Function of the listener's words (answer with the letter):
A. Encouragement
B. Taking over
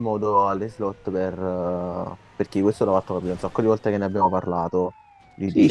B